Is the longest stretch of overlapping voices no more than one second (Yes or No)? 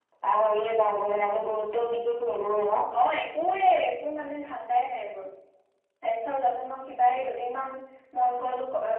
Yes